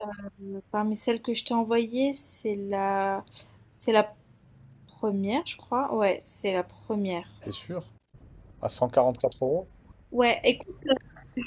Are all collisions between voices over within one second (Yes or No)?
Yes